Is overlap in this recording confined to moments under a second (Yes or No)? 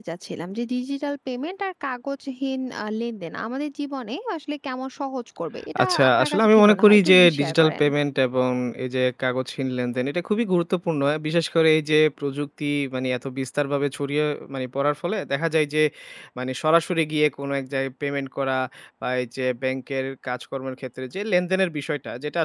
No